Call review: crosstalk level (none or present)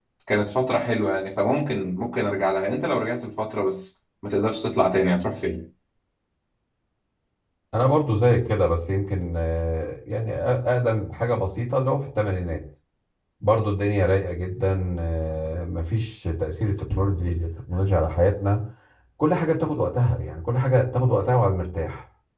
none